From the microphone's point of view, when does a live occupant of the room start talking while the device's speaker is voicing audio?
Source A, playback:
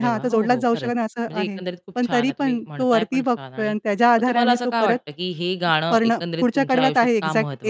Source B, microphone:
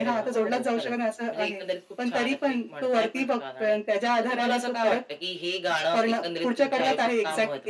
none

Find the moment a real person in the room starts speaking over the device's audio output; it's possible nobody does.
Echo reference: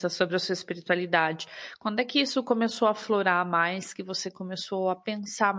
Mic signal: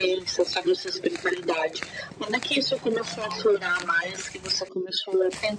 none

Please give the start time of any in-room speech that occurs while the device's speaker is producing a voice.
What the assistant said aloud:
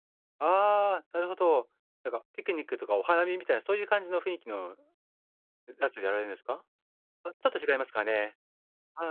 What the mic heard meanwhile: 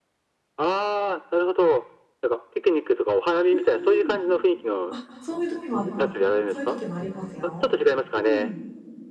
3.5 s

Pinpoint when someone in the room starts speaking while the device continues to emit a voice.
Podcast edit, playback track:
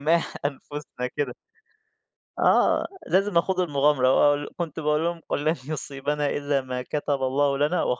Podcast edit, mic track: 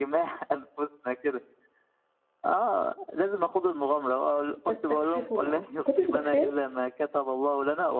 4.7 s

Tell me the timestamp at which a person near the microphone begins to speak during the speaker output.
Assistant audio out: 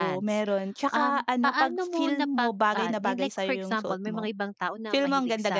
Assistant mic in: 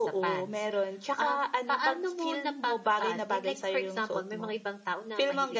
none

